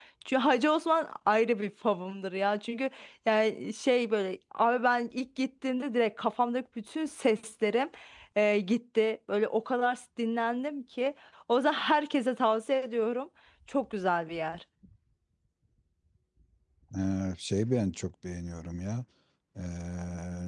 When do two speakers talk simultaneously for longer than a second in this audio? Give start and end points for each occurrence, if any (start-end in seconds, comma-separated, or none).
none